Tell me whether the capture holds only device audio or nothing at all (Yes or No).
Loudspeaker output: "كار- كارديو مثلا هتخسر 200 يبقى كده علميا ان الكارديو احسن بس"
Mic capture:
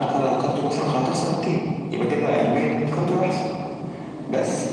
Yes